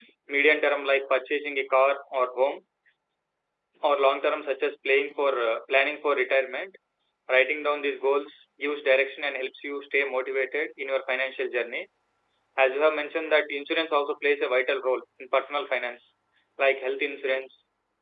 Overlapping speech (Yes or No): No